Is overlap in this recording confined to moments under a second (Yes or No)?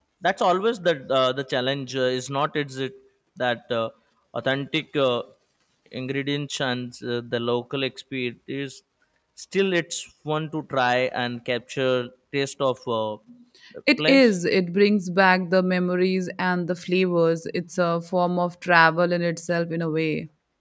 Yes